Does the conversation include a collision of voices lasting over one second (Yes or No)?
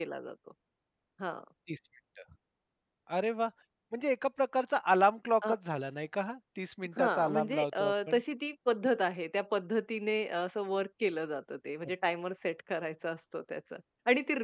Yes